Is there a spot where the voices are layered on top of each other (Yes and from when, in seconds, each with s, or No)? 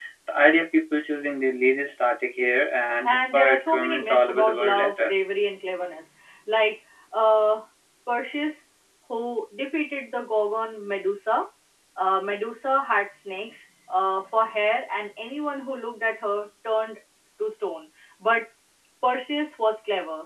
Yes, from 3.0 s